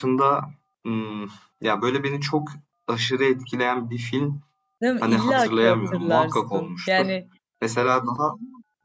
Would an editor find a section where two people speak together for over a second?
Yes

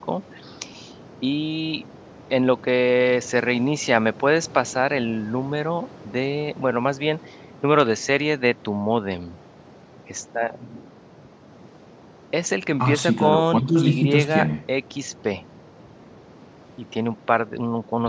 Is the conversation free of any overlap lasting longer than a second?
No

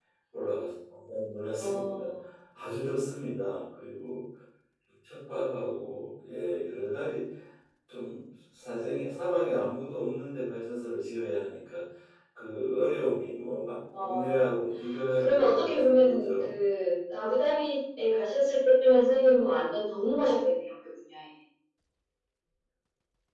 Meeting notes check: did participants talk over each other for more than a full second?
Yes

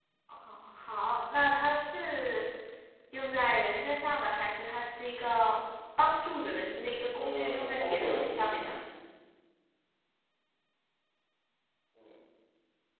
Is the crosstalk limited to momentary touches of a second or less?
No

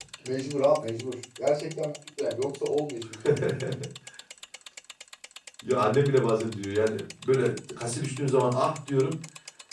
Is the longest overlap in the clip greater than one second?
No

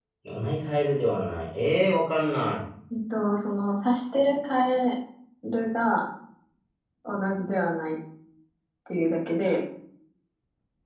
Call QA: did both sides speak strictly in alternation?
Yes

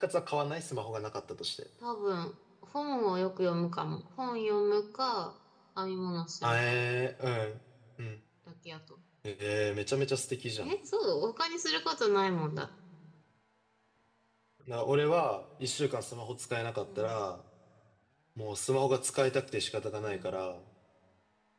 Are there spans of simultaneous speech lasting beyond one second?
No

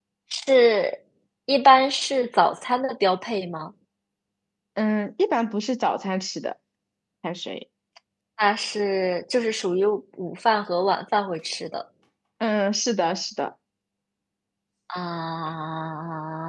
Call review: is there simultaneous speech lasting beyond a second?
No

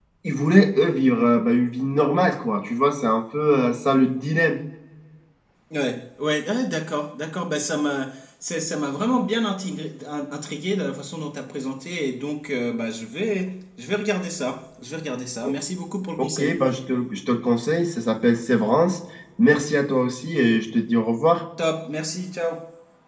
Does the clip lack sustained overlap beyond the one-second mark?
Yes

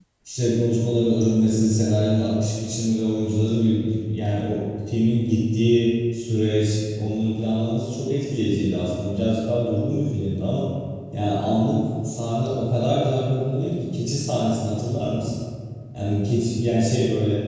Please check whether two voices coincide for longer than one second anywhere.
No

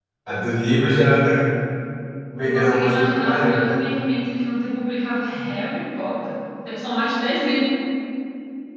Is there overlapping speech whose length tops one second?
Yes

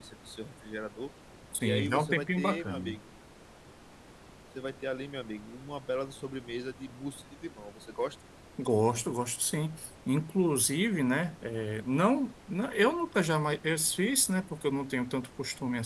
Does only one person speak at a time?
No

